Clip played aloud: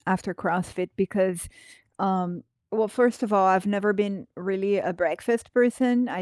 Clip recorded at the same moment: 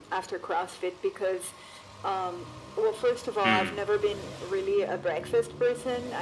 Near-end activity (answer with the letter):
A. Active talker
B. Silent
A